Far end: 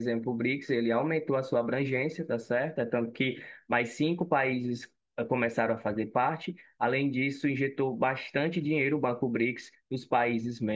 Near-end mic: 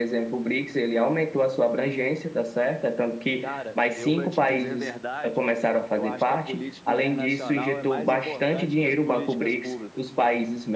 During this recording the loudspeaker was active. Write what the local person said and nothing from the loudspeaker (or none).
Cara, eu, para te dizer a verdade, eu acho que a política internacional é mais importante que as políticas públicas.